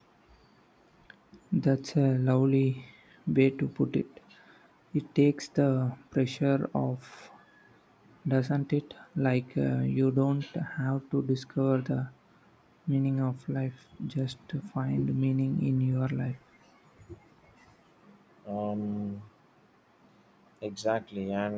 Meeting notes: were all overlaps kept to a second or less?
Yes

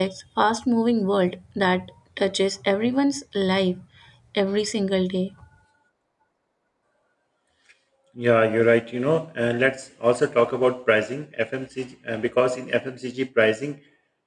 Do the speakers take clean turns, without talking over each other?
Yes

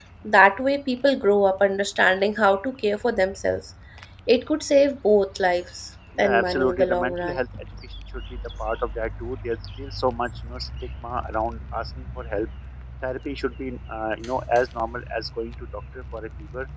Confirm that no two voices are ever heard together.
No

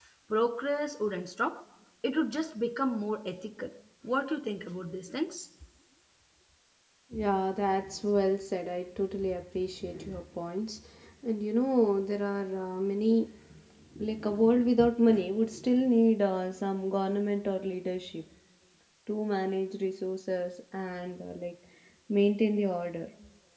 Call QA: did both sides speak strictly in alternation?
Yes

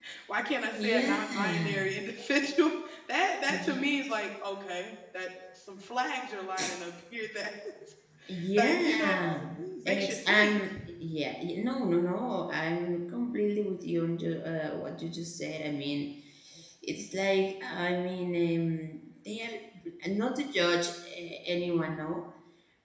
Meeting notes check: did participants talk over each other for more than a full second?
Yes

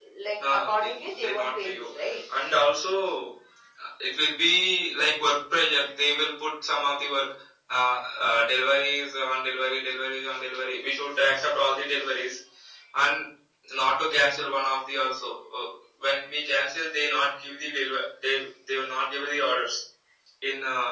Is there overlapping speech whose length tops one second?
Yes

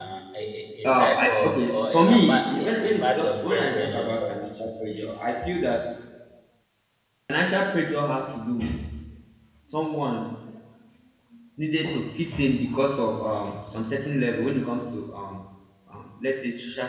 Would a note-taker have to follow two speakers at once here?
Yes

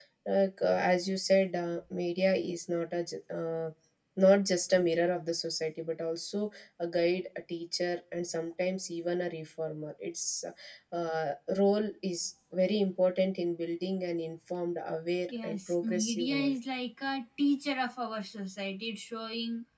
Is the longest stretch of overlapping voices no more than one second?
No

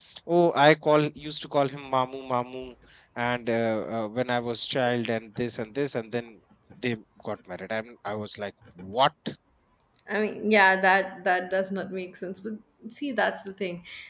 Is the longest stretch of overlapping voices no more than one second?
Yes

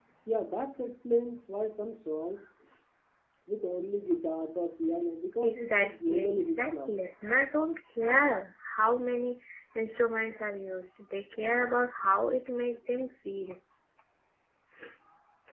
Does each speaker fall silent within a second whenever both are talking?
No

